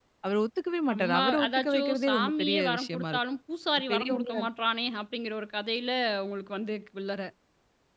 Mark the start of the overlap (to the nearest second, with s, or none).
1 s